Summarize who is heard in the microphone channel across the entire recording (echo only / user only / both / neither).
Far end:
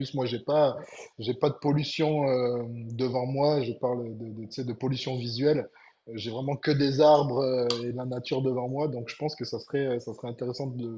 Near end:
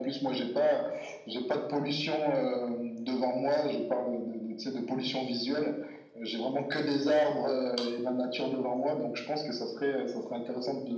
echo only